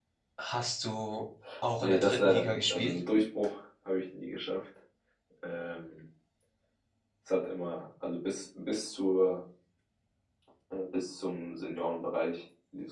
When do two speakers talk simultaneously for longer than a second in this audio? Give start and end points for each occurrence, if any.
1.8-3.0

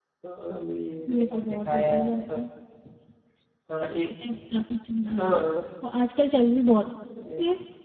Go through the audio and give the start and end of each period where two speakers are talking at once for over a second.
1.2-2.4

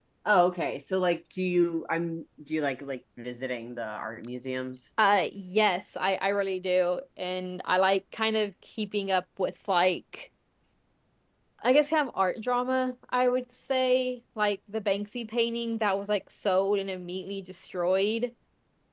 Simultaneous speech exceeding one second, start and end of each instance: none

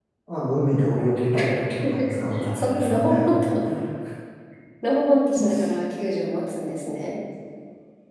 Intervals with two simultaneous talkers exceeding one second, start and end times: 1.8-3.4

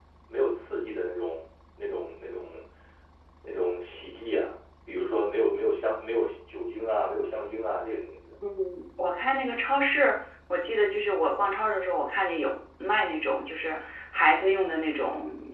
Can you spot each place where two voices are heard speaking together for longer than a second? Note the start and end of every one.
none

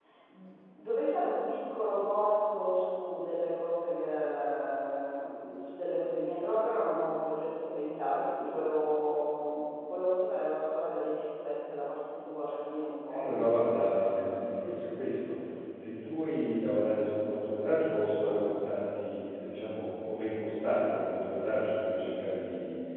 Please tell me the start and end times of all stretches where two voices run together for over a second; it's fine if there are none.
none

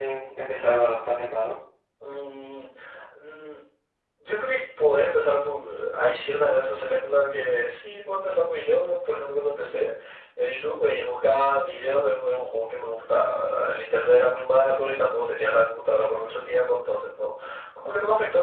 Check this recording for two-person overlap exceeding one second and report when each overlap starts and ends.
none

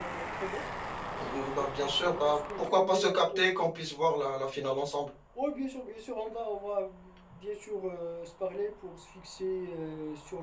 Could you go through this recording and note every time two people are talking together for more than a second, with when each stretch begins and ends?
1.6-3.4

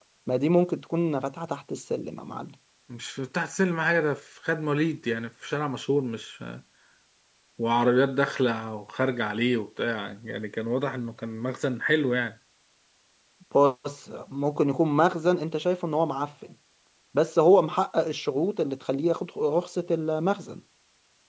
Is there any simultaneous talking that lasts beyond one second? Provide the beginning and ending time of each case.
none

